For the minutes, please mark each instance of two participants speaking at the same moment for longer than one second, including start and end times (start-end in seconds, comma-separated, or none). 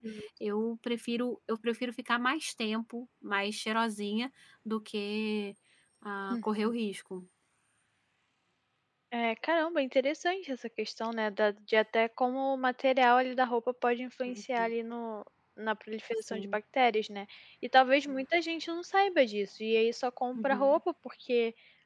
none